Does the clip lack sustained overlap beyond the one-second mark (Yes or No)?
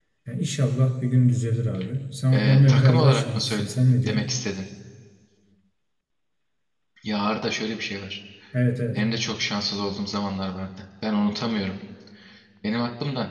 No